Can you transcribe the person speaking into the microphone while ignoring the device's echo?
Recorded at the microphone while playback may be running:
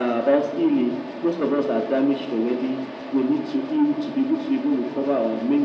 none

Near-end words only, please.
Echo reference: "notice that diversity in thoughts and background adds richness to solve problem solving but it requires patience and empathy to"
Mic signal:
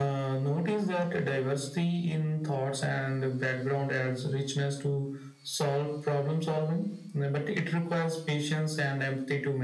none

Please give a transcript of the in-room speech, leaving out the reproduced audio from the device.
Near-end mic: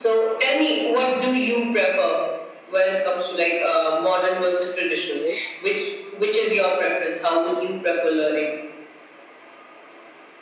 okay.

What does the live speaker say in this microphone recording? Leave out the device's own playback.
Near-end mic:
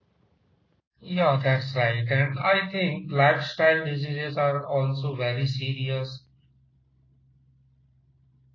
Yeah, that's right. And I think lifestyle diseases are also very serious.

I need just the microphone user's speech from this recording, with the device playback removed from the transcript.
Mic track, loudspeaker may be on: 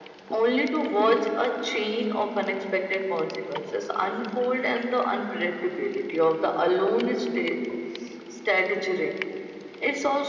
none

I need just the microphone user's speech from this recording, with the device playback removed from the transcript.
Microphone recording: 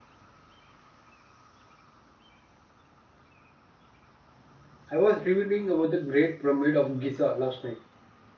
I was reading about the Great Pyramid of Giza last night.

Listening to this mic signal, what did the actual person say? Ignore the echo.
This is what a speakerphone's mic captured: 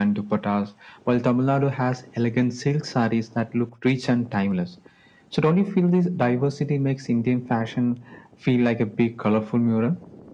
none

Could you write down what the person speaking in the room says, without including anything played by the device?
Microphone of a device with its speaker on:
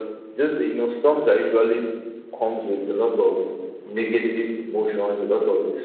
none

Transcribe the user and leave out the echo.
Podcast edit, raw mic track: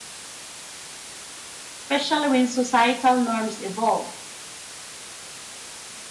especially when societal norms evolve?

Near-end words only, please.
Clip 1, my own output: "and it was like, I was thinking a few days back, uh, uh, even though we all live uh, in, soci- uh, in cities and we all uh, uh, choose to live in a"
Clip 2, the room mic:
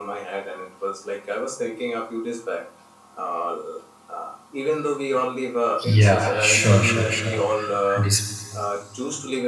Yeah, sure, sure, sure. And, dis-

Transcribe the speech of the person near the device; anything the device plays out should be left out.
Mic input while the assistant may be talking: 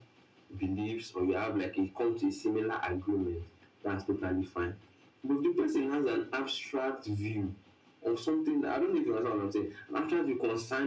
none

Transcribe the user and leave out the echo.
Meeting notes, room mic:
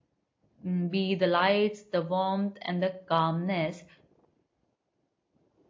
mm, be the lights, the warmth, and the calmness,

